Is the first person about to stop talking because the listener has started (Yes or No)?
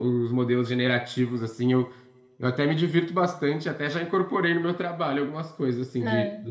No